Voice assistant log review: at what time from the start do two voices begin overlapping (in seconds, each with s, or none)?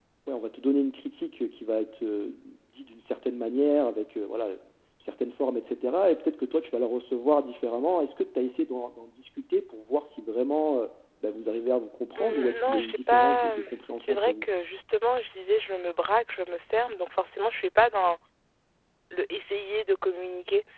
12.1 s